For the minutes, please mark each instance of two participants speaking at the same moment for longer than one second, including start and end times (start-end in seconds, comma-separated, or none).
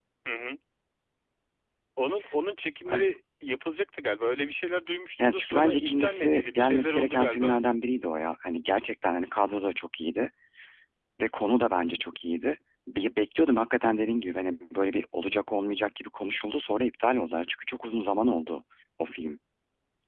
5.2-7.5